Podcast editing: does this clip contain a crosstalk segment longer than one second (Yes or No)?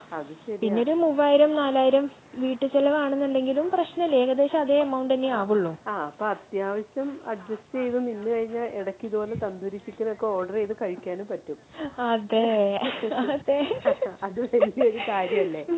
No